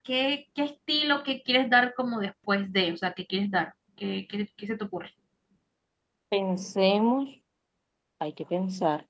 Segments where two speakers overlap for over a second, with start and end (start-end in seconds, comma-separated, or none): none